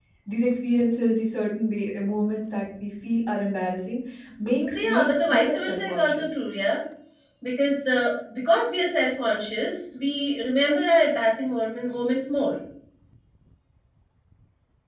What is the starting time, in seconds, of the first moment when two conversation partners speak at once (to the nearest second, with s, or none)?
5 s